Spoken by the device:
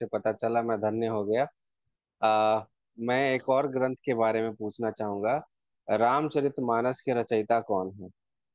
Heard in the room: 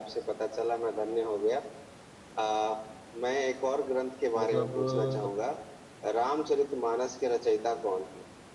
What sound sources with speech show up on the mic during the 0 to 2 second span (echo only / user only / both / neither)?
echo only